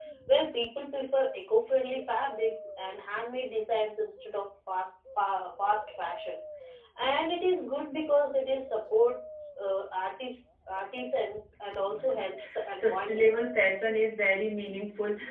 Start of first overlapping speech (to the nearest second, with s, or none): 12 s